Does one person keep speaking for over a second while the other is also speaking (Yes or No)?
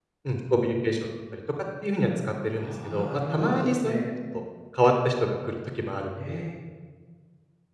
Yes